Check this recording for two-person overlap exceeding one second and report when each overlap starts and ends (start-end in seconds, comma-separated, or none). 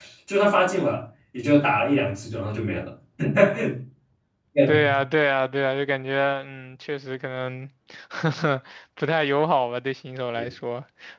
none